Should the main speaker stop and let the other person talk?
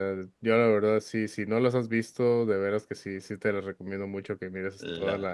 No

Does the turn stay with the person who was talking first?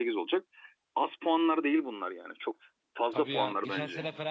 No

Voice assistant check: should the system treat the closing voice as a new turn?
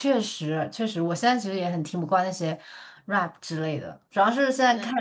No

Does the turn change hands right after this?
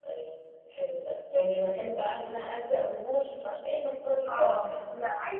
Yes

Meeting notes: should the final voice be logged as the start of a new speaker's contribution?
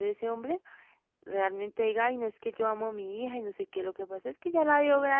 No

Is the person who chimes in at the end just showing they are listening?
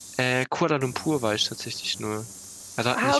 No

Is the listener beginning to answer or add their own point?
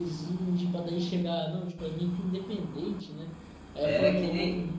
Yes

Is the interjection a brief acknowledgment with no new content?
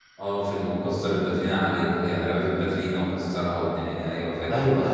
No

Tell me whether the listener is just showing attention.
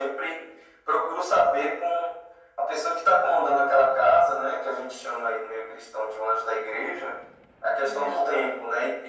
Yes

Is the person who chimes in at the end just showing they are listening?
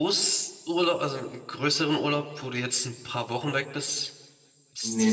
No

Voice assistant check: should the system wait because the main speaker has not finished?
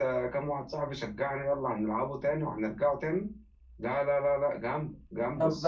No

